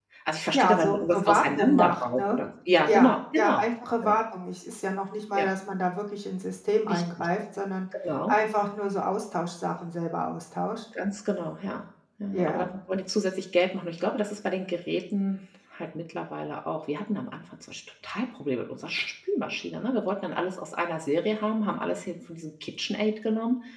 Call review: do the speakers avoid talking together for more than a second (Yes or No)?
No